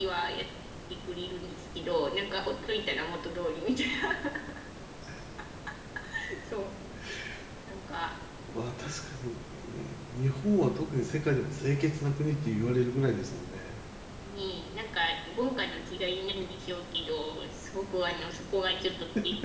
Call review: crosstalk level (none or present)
none